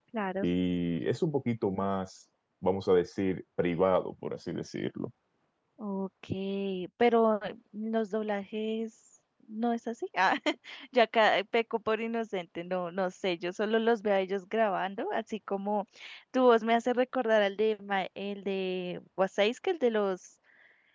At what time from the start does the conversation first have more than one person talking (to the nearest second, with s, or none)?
none